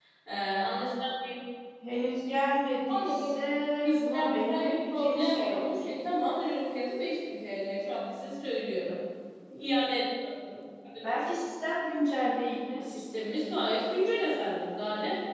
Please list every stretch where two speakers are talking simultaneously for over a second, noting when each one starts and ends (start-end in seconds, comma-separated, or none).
3.9-5.9